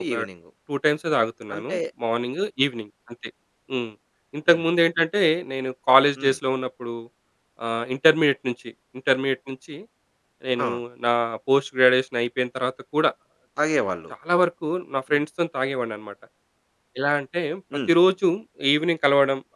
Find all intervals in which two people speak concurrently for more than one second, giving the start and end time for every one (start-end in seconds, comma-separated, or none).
none